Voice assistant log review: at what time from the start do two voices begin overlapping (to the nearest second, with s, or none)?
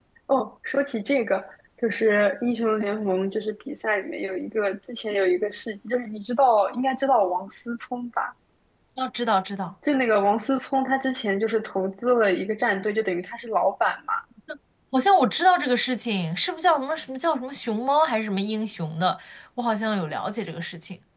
none